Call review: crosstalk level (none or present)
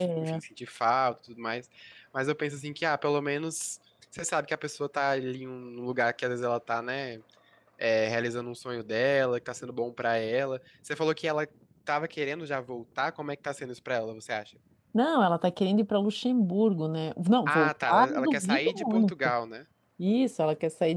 present